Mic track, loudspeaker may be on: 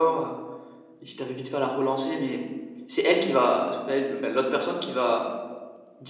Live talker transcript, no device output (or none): none